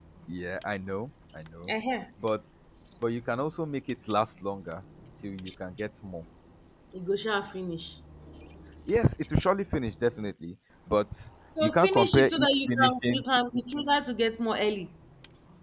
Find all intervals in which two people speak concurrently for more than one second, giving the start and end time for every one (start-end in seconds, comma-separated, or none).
11.6-13.2